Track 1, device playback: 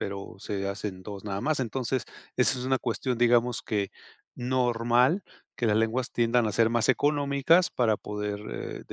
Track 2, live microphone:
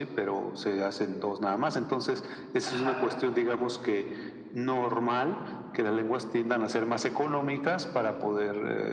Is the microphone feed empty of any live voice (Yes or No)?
No